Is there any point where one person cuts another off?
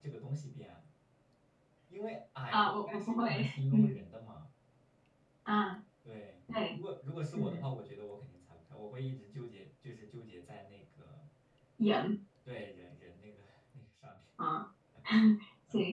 Yes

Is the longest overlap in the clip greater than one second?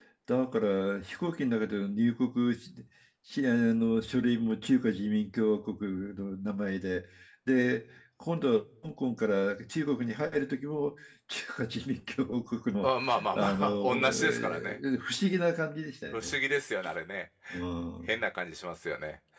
Yes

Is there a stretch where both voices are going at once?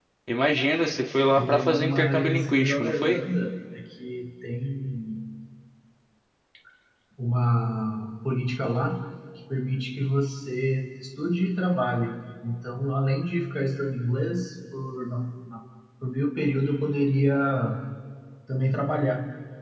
Yes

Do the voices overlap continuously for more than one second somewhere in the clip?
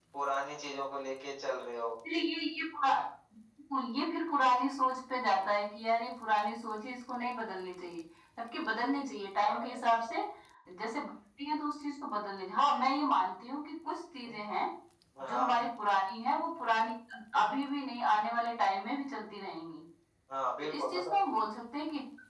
No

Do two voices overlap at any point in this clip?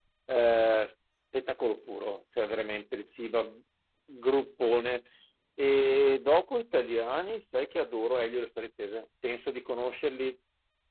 No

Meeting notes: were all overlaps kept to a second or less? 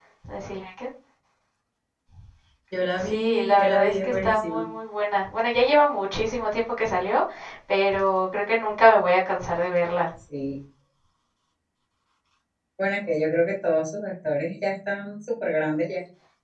No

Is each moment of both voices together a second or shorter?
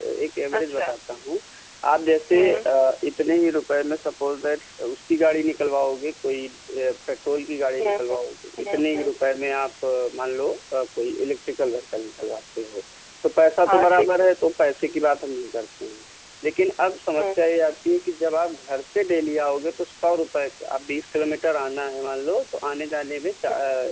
Yes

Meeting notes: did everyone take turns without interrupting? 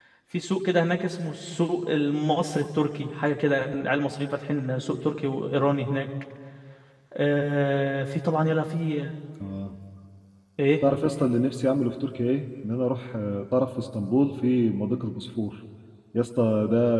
Yes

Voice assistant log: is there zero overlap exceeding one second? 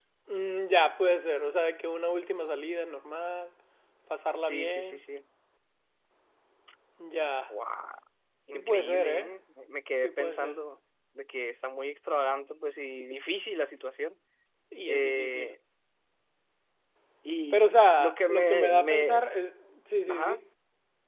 No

